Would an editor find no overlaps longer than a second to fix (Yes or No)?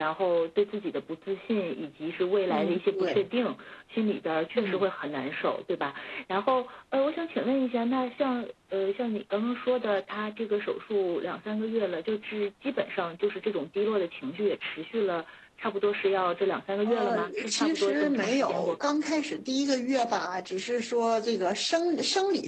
No